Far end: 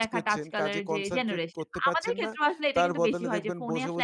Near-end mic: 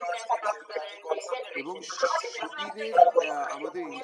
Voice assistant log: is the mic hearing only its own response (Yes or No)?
No